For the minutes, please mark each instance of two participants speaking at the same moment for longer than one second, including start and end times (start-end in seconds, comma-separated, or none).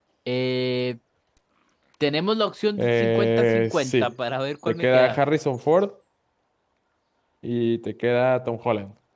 2.8-4.1